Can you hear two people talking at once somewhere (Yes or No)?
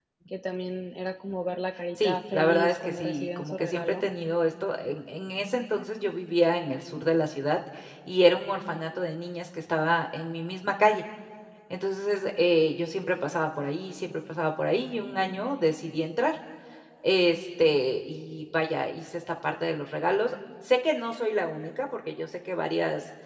Yes